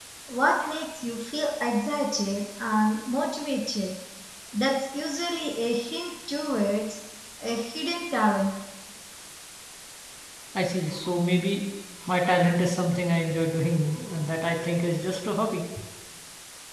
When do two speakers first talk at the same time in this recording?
none

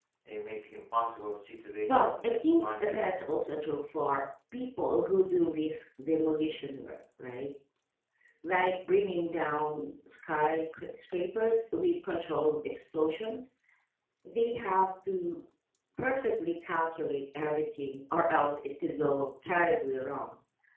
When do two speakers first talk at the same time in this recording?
1.9 s

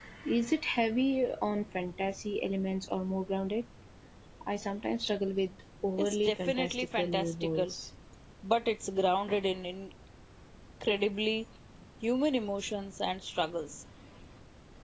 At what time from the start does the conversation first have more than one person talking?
6.0 s

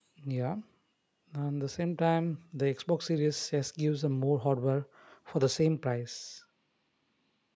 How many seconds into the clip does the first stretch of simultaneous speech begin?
none

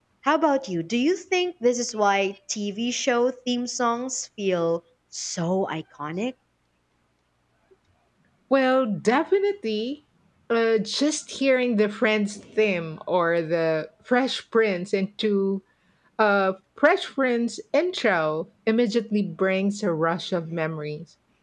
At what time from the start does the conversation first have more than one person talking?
none

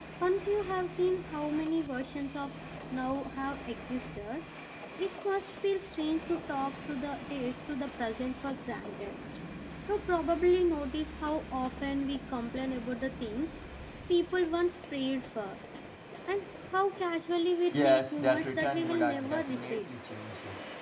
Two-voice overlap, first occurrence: 17.7 s

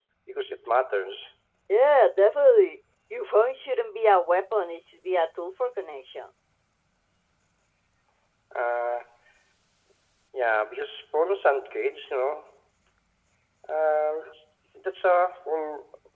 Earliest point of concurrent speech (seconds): none

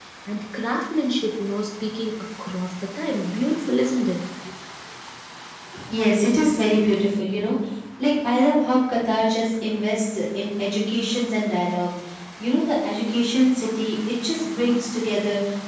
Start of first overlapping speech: none

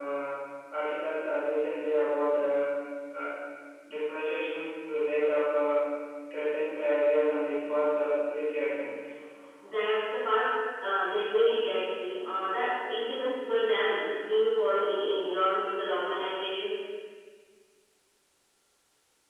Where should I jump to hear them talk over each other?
none

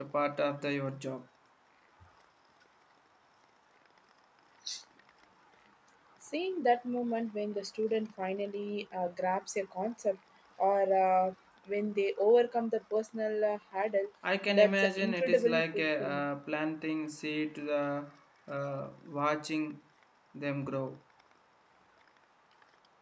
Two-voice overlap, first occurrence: 14.5 s

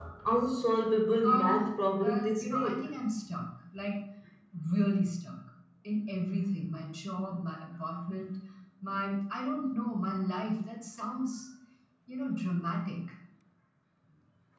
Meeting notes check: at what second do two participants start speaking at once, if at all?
1.2 s

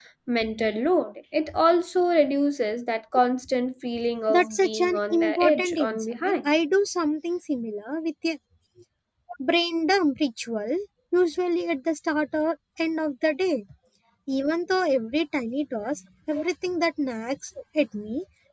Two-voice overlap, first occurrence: 4.3 s

